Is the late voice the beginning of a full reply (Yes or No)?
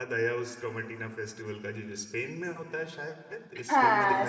Yes